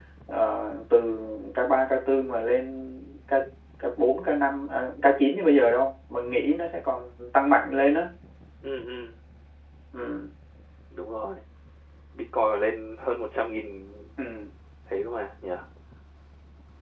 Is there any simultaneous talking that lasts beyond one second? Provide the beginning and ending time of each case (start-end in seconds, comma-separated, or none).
none